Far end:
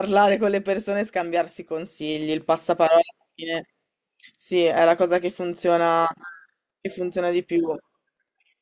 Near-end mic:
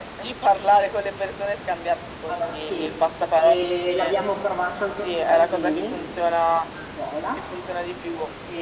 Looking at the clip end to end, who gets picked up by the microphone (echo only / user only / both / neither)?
both